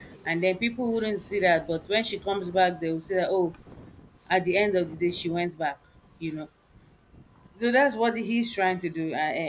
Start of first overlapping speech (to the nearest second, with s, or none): none